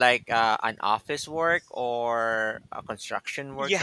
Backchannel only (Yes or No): No